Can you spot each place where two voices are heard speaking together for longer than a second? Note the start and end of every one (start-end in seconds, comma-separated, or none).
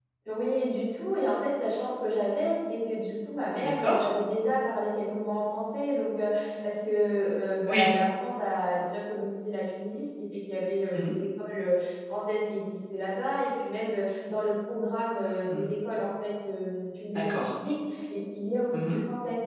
none